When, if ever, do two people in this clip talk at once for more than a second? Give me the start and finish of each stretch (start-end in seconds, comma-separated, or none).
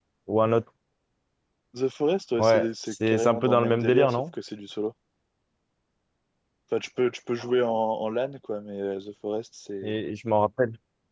2.4-4.2